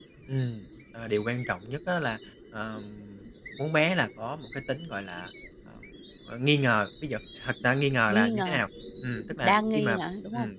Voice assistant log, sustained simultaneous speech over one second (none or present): none